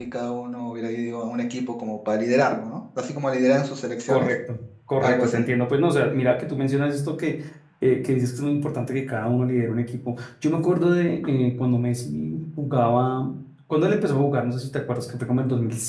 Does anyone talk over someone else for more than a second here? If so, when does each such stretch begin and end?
none

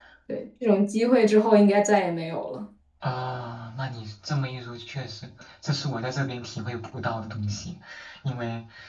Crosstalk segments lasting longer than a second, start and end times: none

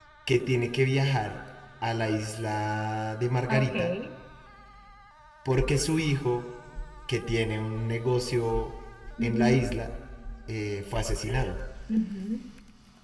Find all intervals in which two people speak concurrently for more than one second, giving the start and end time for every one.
none

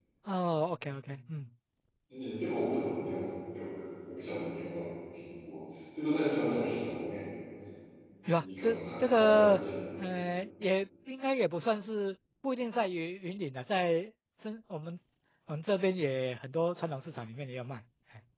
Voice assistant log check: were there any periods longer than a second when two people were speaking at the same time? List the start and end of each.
8.4-9.6

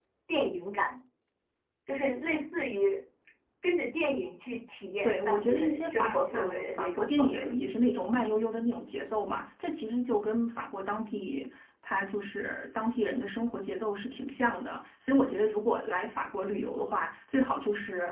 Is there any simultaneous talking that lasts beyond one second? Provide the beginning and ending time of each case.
5.0-7.5

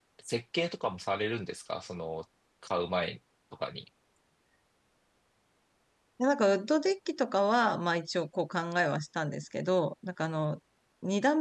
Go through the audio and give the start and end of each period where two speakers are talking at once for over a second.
none

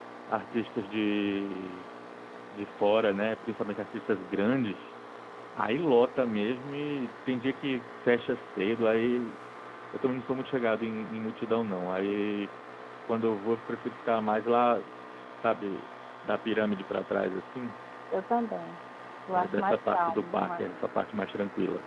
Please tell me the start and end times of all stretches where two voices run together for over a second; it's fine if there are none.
19.3-20.7

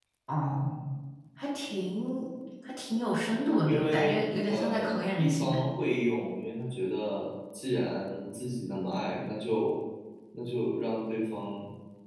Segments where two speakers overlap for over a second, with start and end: 3.6-5.6

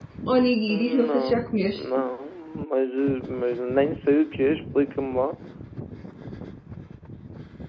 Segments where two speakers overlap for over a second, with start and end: 0.7-2.0

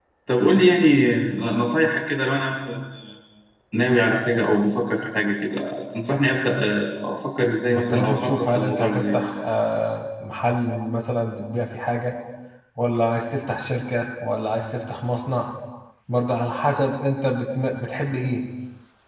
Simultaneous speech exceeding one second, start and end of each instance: 7.7-9.2

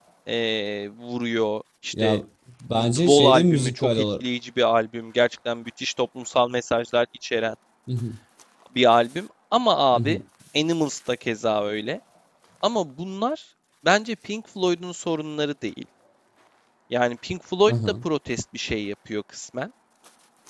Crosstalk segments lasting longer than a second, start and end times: 2.7-4.0

